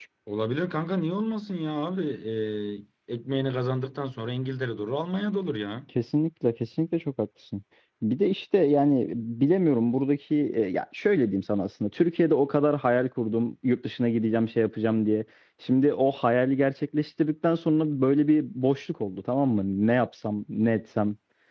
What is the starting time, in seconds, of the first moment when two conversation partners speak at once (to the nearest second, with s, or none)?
none